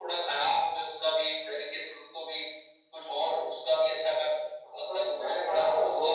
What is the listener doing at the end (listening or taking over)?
taking over